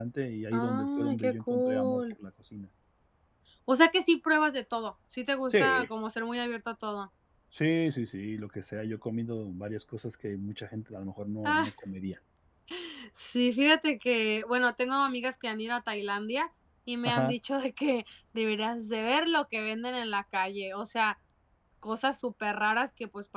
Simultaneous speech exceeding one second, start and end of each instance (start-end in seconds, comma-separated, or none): 0.5-2.0